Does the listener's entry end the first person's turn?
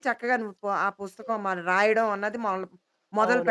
Yes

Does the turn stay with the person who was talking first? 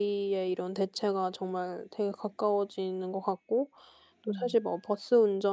Yes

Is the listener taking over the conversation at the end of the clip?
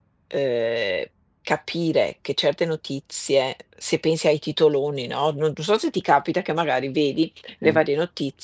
No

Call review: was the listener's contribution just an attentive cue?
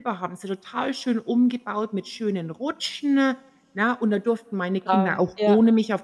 Yes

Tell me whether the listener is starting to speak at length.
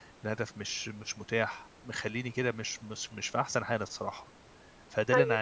No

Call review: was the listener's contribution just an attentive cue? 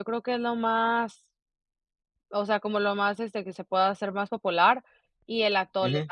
Yes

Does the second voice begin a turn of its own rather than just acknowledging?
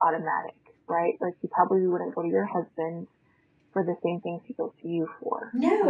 Yes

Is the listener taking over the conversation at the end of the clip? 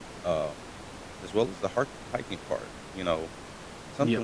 No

